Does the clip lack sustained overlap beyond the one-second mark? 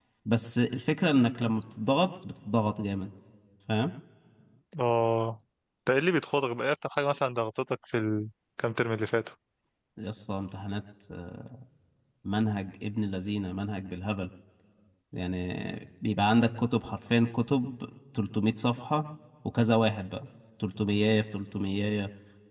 Yes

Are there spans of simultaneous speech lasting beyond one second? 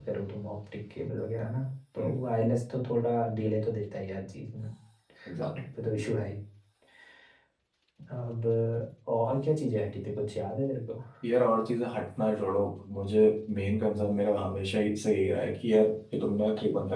No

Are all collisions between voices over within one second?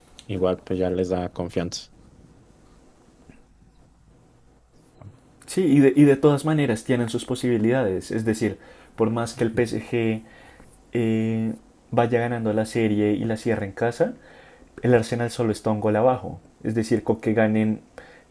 Yes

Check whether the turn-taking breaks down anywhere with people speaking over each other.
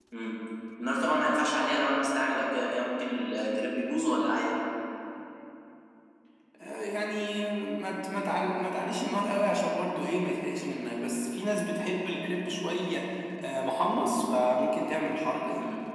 No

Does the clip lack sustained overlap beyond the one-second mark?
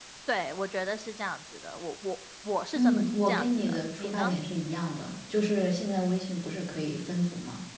No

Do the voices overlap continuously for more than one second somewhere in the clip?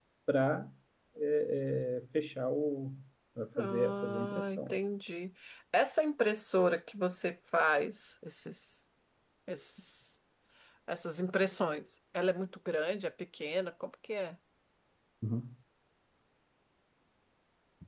Yes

